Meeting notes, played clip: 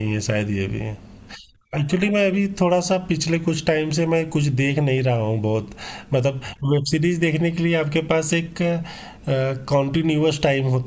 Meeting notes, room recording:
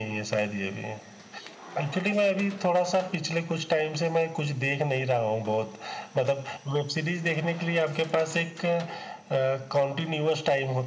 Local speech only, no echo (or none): none